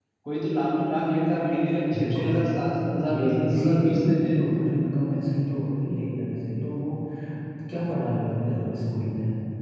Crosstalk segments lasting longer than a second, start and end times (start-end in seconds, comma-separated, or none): 3.1-4.4